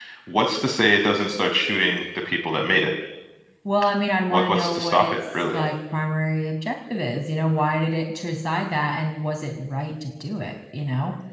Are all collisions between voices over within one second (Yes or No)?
No